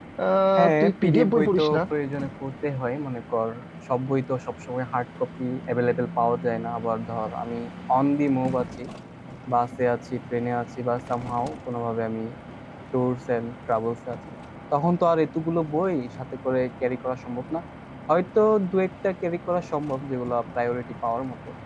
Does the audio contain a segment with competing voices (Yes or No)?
Yes